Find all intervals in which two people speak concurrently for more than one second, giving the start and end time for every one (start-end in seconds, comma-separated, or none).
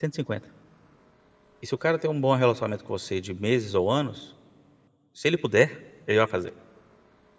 none